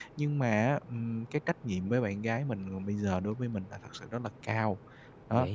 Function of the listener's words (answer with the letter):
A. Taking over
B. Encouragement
B